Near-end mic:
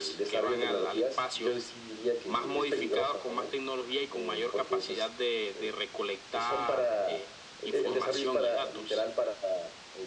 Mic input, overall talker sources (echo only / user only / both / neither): echo only